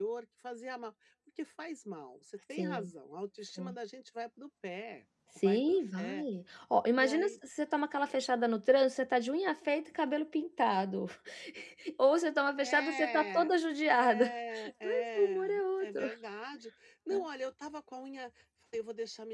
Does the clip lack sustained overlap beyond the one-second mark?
No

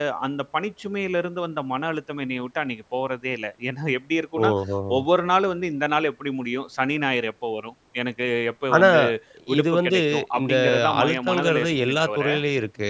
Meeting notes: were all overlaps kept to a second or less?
No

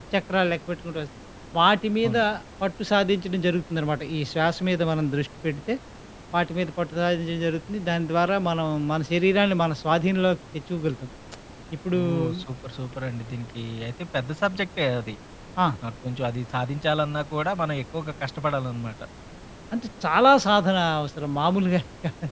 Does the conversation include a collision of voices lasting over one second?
No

